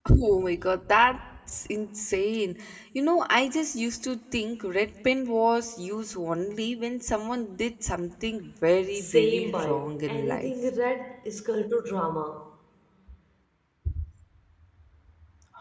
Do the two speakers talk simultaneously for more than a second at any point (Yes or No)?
Yes